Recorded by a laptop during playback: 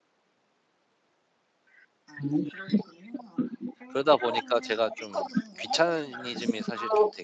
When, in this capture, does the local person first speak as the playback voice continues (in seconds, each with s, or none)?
3.9 s